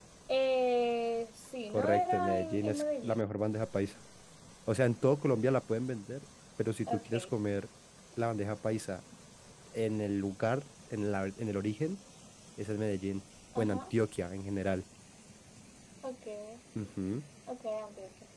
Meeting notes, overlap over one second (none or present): present